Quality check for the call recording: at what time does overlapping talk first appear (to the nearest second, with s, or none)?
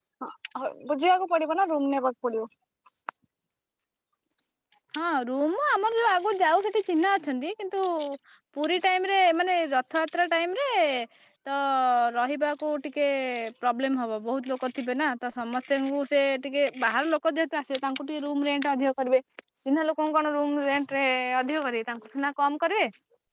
none